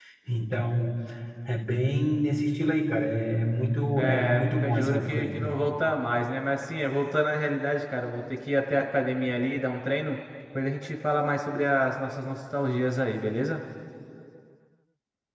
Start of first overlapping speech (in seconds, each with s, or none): 4.0 s